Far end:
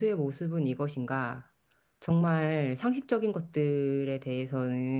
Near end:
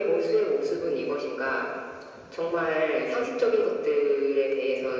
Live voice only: none

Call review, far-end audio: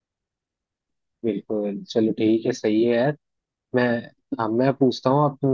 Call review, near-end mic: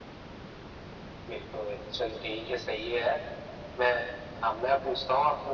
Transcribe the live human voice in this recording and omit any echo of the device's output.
none

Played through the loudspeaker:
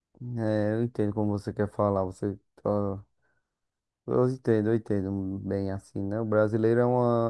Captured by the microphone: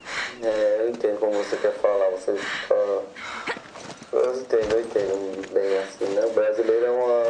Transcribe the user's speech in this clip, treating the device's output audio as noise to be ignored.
none

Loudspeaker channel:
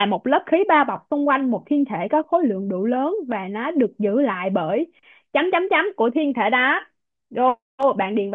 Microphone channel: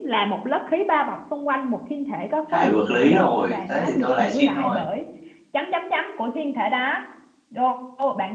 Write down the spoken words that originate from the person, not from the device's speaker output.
lại vật lý rồi thế thì tôi lại xin rồi

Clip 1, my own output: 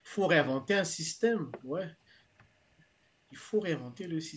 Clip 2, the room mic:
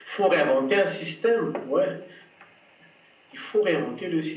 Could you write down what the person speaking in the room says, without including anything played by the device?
none

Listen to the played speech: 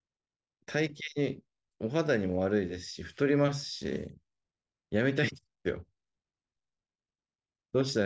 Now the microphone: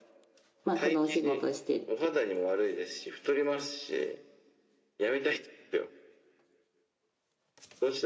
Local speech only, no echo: まあ、このお仕事してって

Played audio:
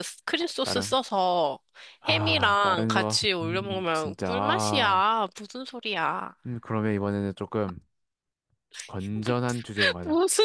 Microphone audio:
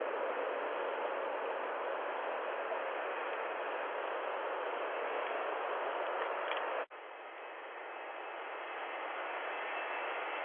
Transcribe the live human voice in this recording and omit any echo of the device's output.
none

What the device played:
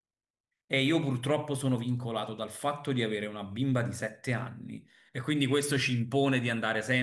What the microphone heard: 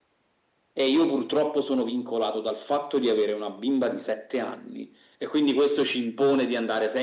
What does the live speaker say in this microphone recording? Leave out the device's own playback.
none

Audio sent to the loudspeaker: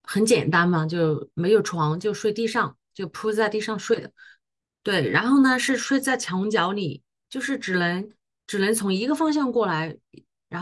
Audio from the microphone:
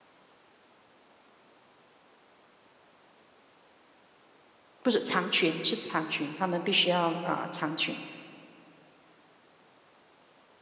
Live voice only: 不是长裙，是长裙，他们必须要啊、长裙。

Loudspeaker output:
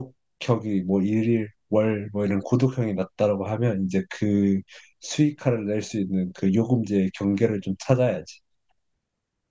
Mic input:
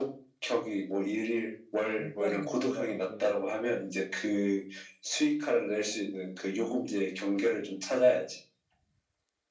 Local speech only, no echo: 일단은 근데 나는 그,

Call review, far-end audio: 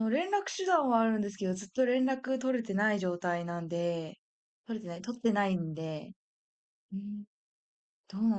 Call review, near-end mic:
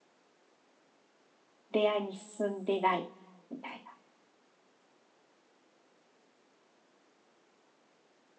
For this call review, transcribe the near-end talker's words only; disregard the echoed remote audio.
恋愛に進んでない、みたいな。

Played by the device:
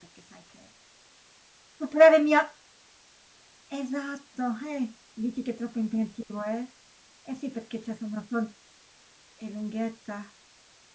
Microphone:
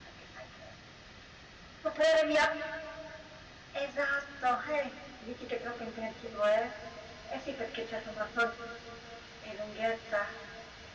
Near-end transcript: none

